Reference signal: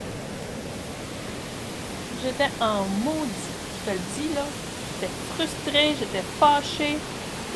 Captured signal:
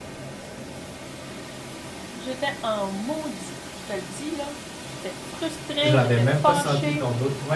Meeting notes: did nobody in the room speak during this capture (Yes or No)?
No